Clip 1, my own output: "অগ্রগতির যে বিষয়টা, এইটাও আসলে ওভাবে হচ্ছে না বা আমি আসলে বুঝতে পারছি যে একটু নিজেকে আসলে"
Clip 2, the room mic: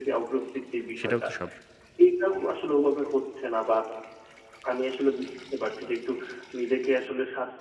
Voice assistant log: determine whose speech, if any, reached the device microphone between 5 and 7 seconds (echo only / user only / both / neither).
echo only